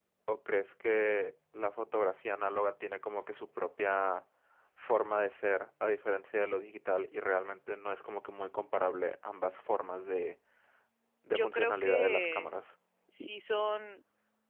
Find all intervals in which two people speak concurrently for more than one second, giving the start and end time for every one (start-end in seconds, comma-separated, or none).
11.3-12.5